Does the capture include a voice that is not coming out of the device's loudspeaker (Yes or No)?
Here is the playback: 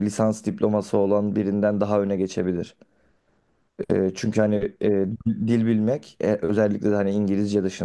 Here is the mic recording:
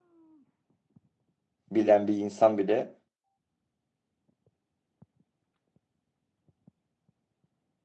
Yes